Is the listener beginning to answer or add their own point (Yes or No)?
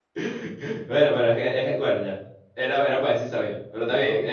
No